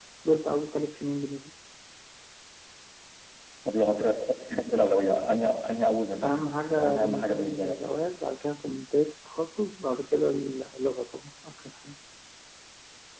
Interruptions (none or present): present